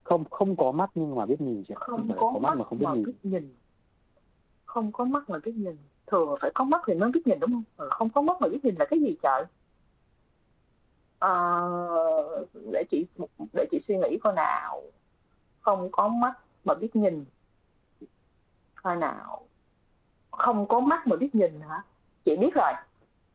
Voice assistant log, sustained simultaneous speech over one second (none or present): present